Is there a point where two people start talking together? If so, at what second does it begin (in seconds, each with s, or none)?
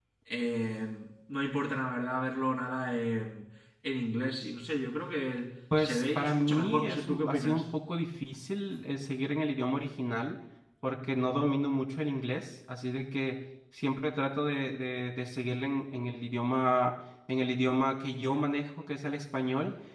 5.7 s